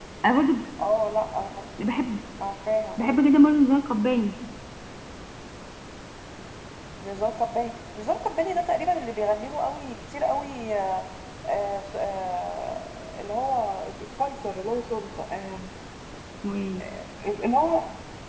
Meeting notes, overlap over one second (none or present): none